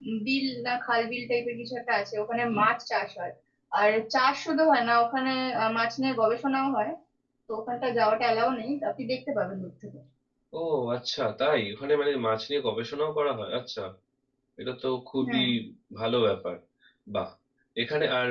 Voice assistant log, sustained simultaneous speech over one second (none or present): none